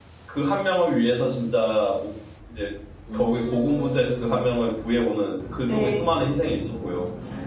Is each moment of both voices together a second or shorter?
No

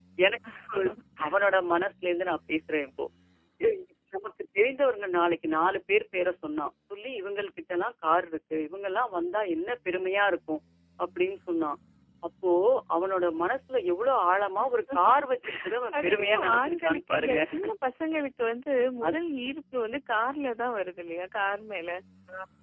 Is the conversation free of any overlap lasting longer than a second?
No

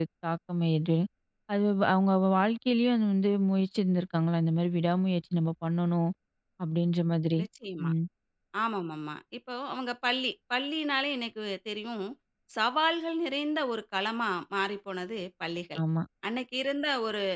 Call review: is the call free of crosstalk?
Yes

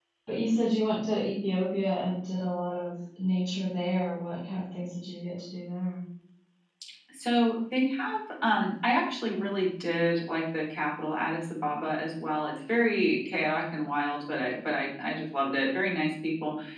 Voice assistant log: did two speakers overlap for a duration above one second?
No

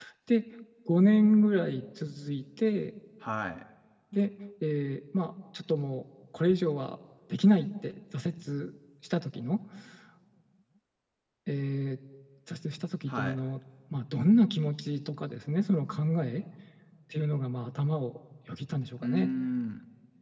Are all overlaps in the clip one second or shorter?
Yes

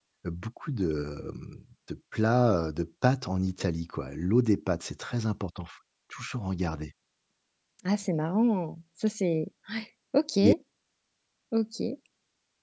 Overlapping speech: No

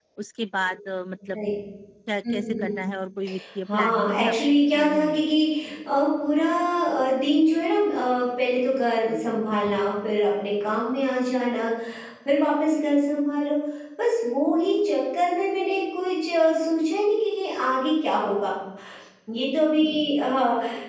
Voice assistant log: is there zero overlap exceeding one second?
No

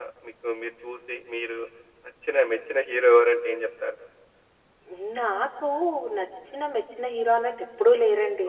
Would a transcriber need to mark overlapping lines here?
No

